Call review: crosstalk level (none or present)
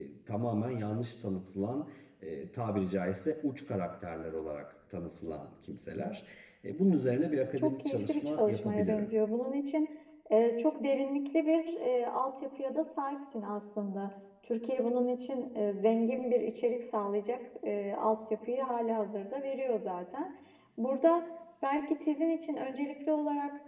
present